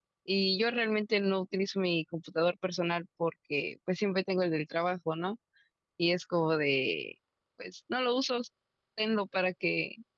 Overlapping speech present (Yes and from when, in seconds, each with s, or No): No